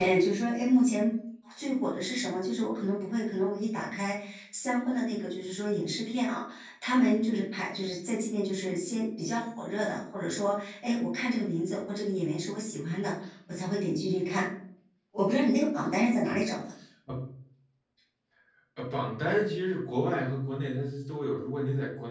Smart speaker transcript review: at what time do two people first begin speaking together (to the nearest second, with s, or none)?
none